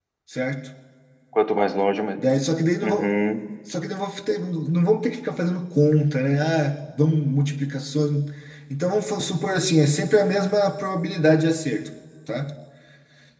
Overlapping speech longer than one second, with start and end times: none

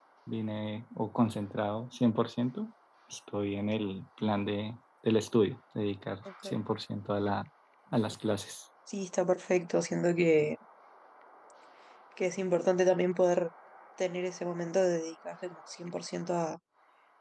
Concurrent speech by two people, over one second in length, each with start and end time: none

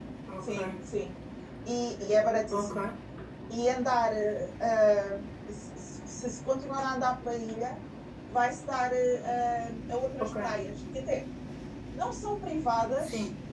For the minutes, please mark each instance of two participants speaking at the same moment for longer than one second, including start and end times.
none

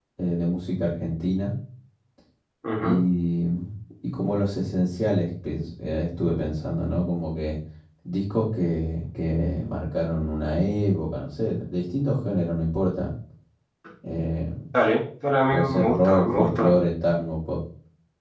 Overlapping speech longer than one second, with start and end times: 15.5-16.7

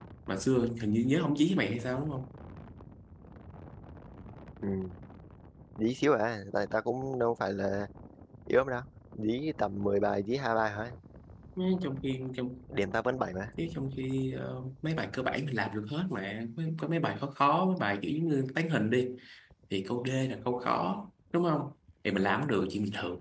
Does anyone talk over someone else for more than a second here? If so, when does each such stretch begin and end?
none

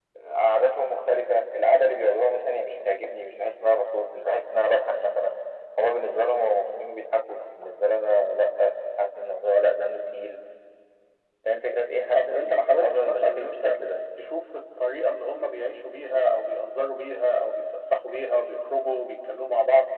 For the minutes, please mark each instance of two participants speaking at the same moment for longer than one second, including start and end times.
12.1-13.8

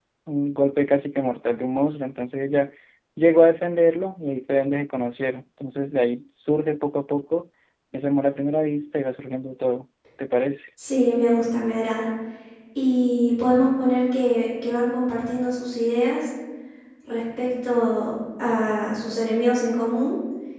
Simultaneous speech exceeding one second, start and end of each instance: none

